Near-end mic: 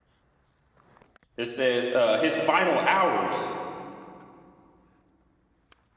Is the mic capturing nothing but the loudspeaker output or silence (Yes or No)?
No